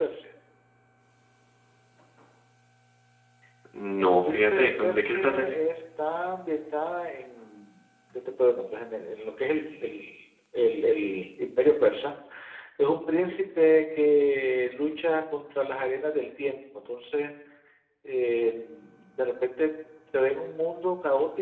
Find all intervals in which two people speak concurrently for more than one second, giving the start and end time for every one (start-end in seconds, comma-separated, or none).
4.0-5.5